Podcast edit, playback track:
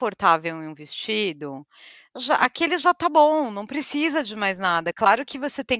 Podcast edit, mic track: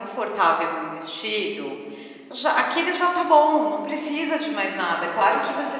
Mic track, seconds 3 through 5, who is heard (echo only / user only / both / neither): echo only